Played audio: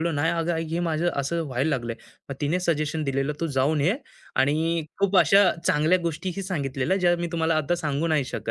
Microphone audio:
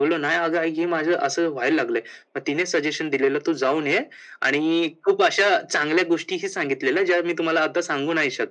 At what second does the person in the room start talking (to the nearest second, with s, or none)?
none